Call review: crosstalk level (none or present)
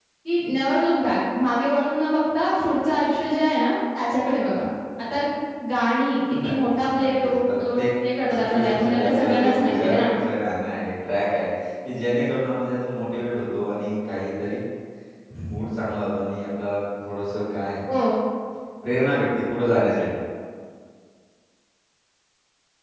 present